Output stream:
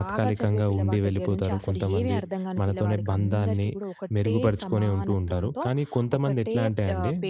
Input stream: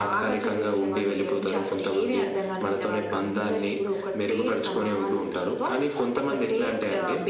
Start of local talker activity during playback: none

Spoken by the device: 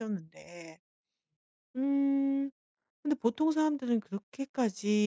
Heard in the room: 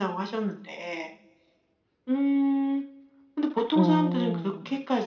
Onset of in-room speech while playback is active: 3.7 s

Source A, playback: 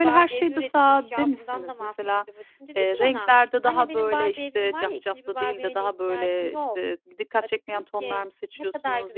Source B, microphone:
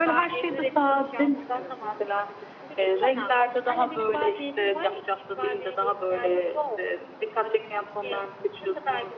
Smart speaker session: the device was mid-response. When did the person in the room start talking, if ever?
none

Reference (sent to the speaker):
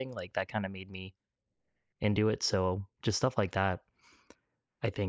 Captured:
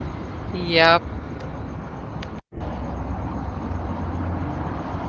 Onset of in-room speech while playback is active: 0.5 s

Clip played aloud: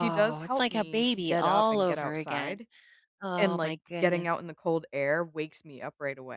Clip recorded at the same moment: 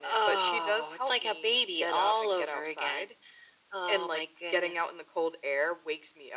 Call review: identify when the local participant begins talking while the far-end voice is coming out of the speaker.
none

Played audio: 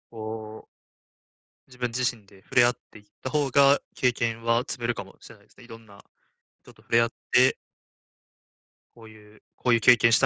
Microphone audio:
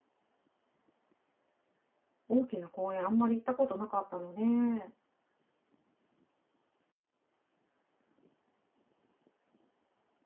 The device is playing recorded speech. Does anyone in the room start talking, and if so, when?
2.3 s

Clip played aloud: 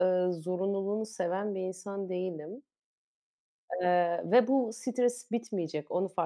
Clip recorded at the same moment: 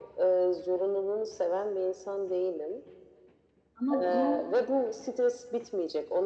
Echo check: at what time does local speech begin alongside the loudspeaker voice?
3.8 s

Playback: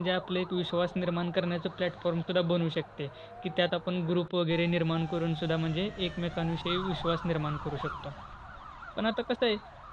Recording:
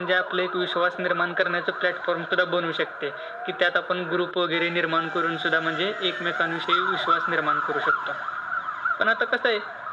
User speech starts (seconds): none

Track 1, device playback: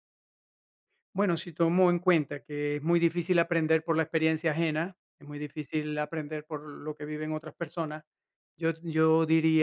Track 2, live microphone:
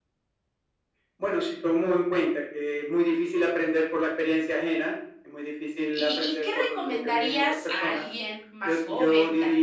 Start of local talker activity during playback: 5.9 s

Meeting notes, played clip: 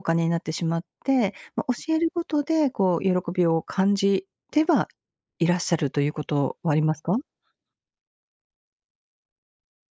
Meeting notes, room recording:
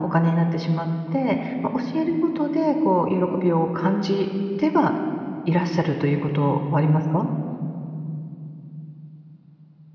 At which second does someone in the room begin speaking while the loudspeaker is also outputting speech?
none

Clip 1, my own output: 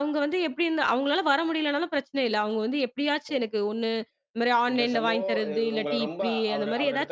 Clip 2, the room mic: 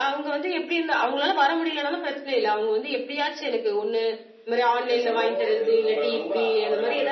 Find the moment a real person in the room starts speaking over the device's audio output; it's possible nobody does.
none

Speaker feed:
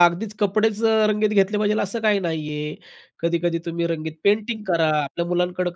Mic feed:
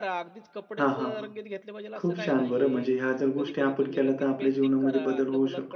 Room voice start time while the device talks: 0.8 s

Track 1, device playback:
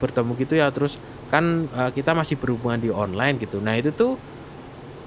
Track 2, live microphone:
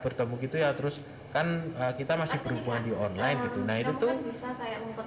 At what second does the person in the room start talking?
2.3 s

